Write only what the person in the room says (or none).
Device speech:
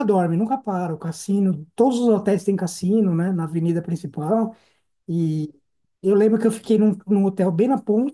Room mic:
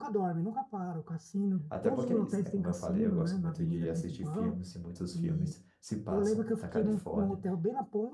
Até porque é isso, né? Como eu falei, eu gosto muito de assistir filmes e muitos filmes se passam na Califórnia.